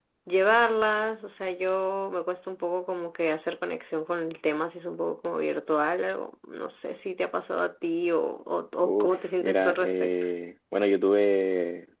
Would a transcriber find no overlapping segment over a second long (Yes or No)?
No